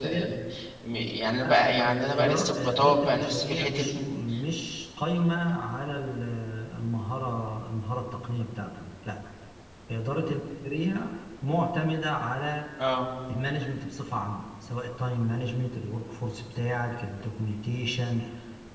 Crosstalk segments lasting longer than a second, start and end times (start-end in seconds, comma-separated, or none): 1.8-4.0